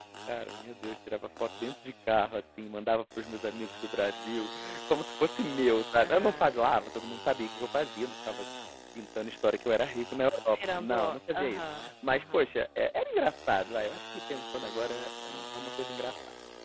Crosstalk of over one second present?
Yes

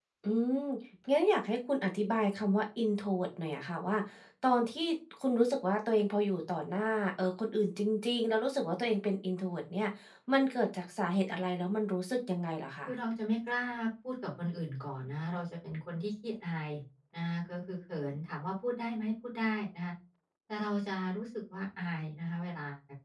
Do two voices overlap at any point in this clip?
No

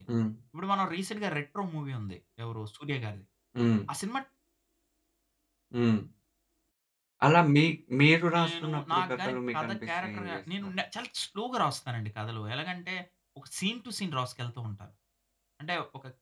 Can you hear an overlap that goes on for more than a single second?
Yes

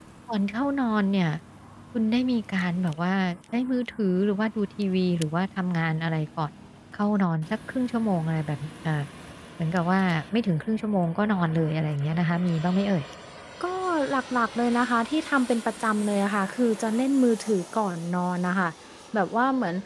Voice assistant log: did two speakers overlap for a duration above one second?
No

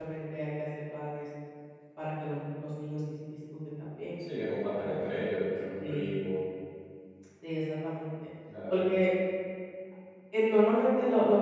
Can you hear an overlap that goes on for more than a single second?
No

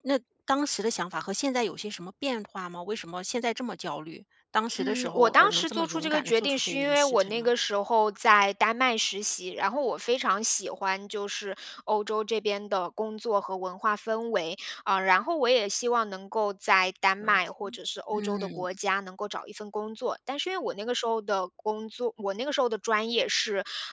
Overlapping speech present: Yes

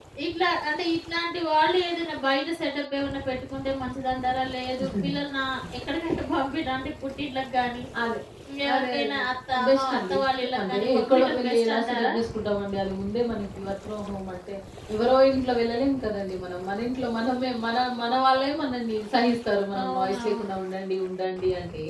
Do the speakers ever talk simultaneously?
Yes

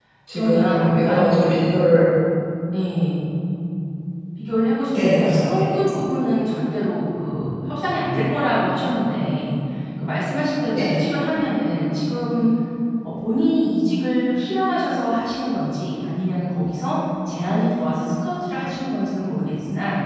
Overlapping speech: Yes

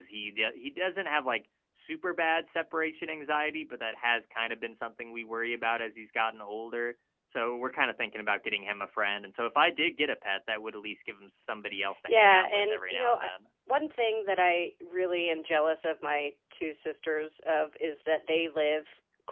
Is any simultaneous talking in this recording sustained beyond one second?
Yes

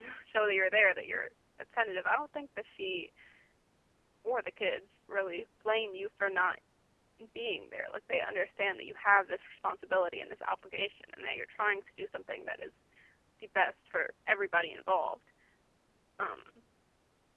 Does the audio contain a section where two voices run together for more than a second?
No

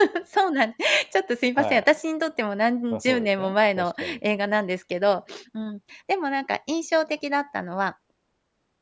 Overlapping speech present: Yes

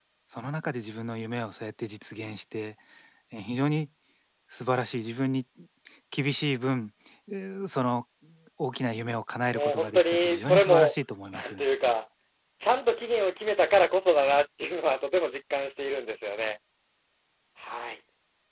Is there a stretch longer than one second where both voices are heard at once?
Yes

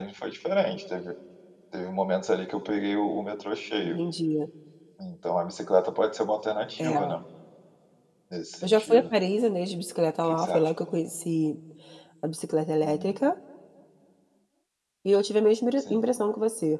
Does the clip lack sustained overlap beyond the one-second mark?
Yes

